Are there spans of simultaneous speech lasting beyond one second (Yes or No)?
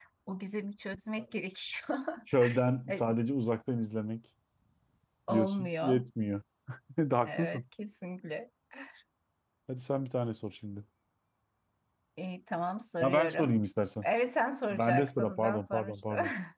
Yes